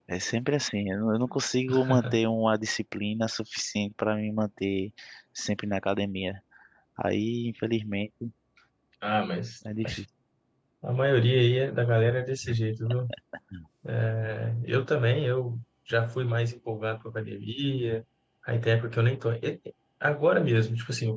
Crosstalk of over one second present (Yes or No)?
No